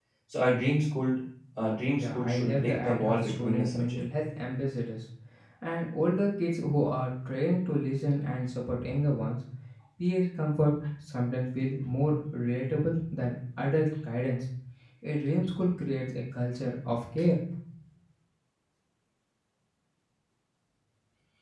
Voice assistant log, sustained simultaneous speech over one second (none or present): present